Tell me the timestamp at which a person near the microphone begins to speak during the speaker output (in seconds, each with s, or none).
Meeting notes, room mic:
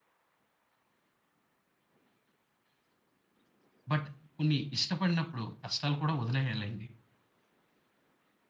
3.9 s